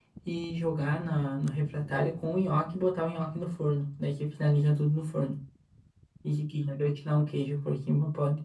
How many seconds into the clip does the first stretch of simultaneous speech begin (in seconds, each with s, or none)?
none